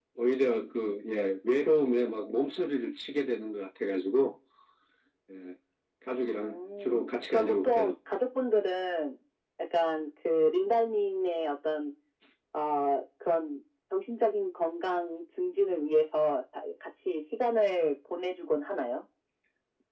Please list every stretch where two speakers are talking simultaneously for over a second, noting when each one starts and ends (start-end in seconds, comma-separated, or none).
6.4-7.9